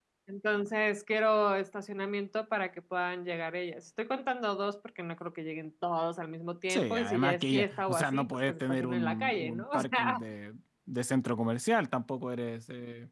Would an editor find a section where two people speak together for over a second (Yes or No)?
Yes